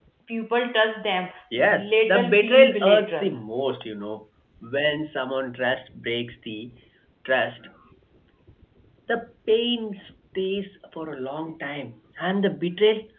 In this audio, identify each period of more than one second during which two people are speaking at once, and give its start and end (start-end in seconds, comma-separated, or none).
1.6-3.4